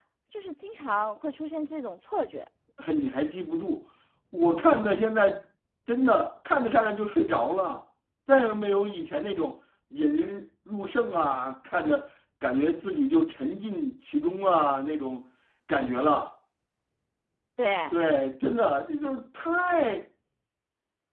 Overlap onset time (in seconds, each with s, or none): none